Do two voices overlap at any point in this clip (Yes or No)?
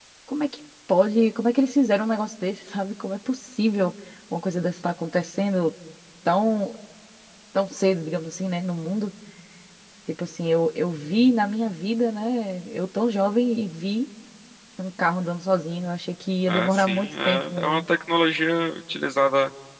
Yes